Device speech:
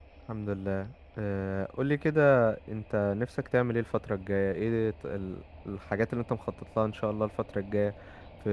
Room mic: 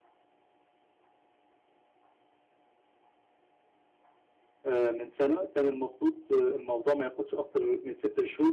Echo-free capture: Yes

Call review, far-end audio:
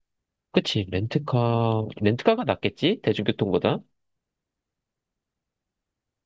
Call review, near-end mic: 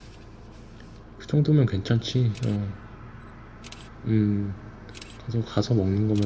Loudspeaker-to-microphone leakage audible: No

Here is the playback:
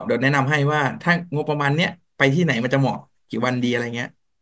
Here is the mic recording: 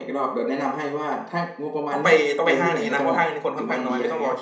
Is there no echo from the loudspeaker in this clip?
No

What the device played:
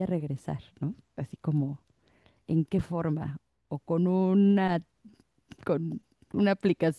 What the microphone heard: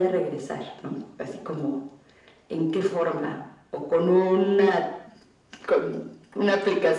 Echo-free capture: No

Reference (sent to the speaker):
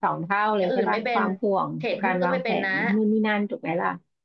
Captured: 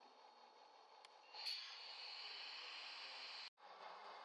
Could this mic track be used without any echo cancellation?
Yes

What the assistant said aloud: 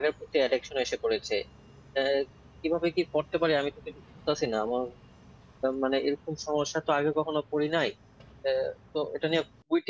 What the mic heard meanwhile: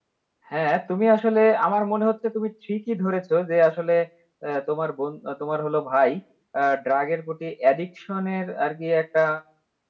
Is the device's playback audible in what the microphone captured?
No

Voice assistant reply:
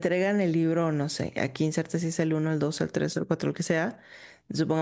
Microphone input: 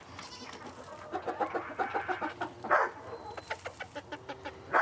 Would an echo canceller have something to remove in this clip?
No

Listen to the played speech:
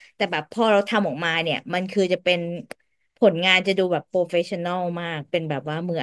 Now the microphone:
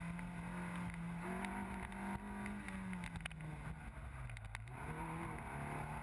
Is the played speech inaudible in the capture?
Yes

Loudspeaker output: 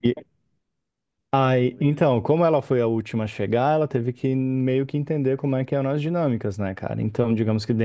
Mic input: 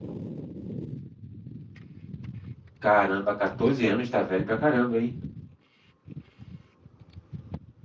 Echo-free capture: Yes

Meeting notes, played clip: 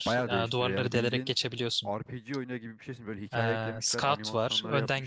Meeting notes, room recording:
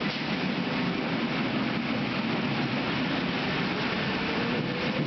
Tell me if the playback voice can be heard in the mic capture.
No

